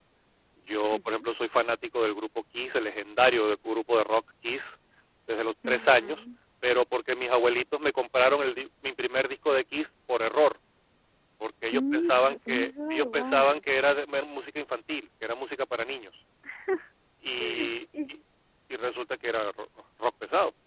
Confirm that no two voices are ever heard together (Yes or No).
No